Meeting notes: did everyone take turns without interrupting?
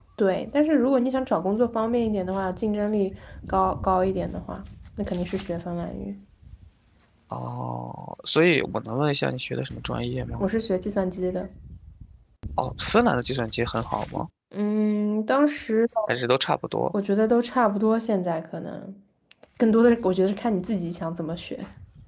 Yes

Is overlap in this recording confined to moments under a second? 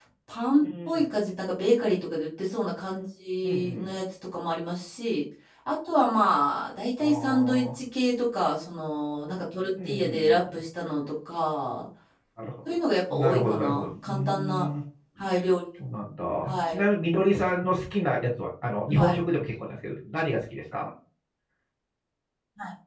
No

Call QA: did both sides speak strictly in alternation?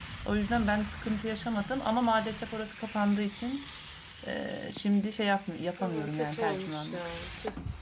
No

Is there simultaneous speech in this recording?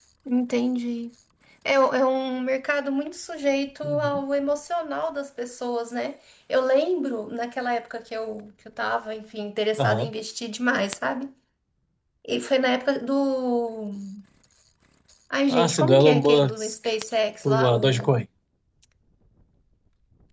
Yes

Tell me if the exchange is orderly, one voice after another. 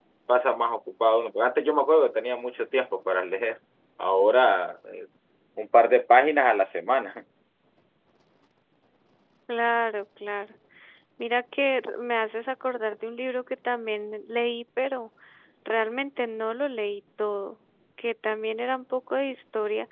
Yes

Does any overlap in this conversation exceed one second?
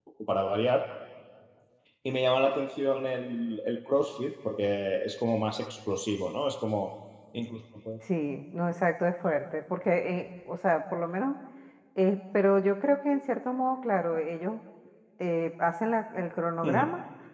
No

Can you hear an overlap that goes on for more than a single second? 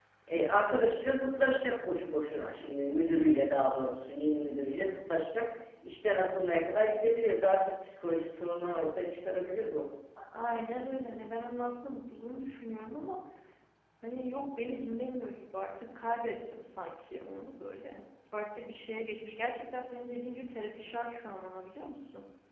No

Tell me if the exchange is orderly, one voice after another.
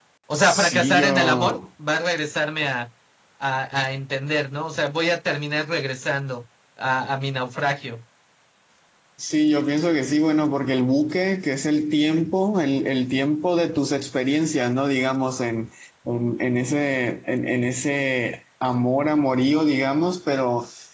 No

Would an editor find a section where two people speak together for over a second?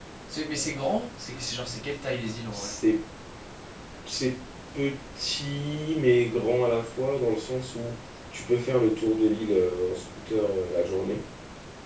No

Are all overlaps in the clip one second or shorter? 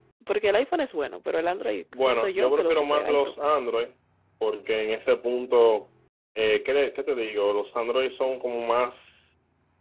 No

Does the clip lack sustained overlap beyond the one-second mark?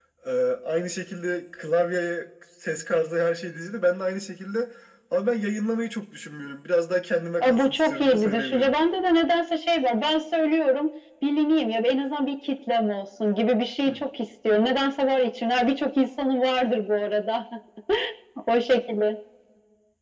No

